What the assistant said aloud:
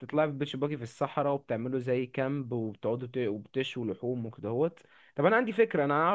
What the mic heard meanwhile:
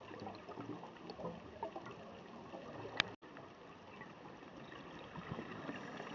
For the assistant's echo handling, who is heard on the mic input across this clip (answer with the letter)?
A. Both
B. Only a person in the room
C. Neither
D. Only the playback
C